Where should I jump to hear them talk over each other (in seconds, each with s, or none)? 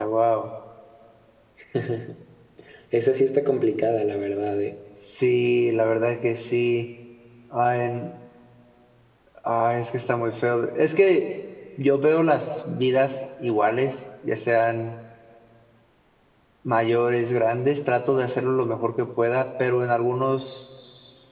none